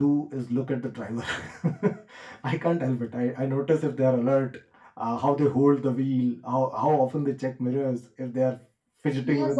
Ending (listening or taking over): taking over